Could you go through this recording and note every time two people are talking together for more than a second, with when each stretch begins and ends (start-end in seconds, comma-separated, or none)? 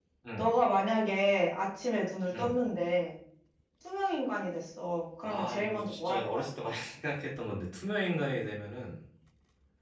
5.2-6.5